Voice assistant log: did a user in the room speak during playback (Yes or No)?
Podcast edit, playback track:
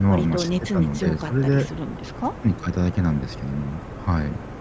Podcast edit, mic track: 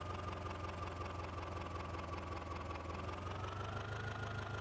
No